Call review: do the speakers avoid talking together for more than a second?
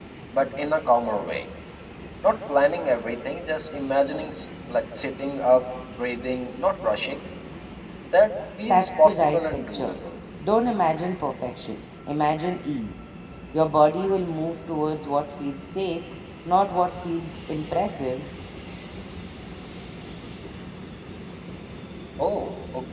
No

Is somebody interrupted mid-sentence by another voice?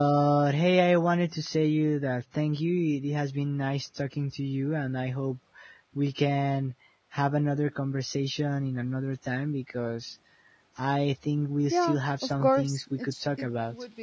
Yes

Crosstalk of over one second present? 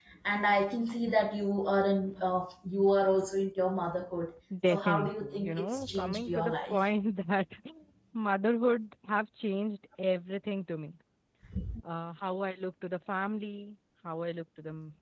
Yes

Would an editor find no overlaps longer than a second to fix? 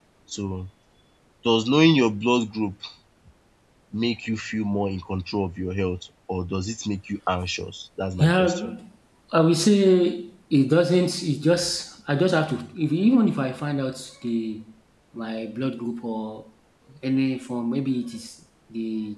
Yes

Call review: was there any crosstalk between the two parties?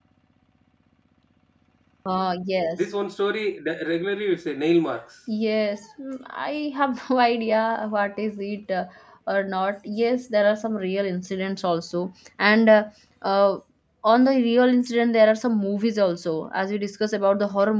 No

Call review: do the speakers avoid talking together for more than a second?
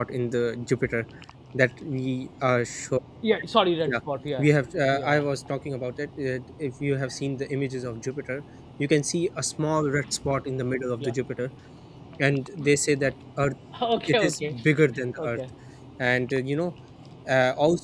Yes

